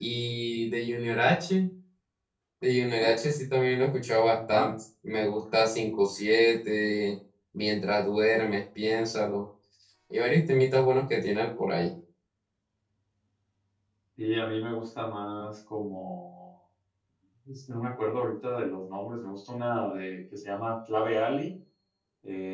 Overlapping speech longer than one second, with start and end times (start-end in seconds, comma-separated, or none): none